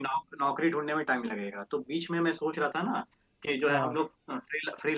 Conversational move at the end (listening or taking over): listening